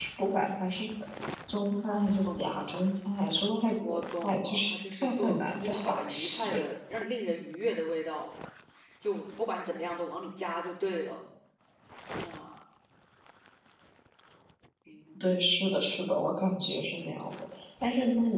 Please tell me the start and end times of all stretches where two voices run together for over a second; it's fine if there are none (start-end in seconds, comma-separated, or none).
3.9-6.6